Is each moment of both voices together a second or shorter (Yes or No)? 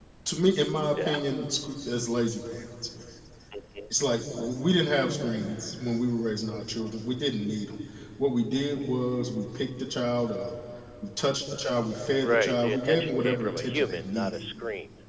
No